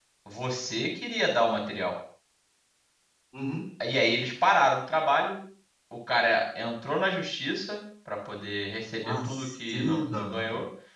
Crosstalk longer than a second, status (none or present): present